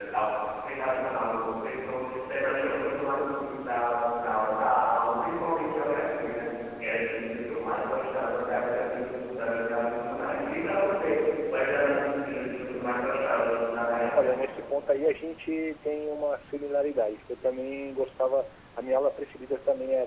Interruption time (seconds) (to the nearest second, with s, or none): none